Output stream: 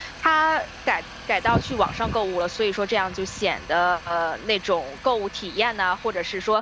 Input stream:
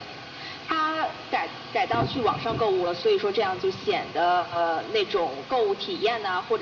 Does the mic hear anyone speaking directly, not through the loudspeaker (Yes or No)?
No